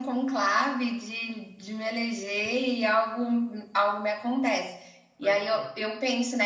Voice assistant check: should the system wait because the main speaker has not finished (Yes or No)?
Yes